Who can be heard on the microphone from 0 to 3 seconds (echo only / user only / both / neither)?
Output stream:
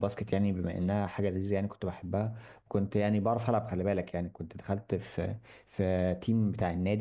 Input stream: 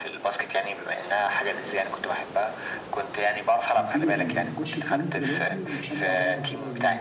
echo only